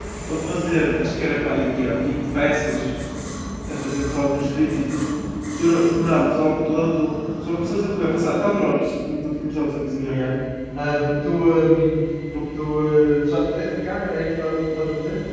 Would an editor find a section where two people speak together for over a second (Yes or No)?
No